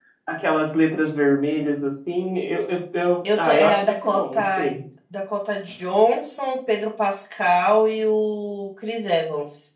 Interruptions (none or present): present